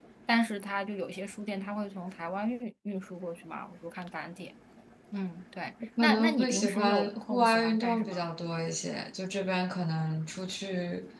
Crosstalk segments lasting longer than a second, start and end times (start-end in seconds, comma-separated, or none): 6.0-8.2